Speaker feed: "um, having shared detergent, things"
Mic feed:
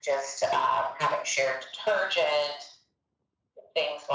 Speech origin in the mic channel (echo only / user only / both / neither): echo only